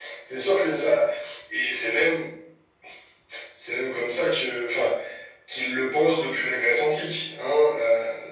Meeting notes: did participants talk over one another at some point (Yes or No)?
No